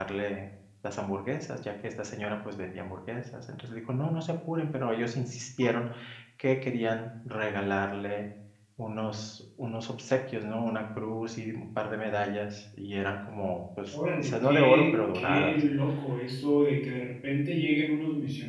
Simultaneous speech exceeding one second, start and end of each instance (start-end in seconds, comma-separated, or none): 13.9-15.6